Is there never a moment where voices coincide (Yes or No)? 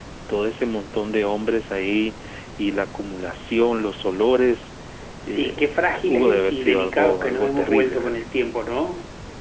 No